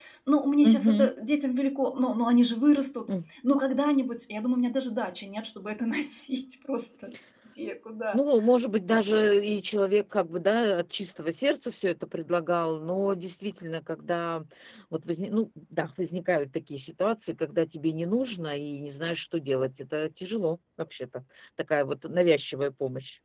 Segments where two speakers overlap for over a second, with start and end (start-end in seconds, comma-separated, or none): none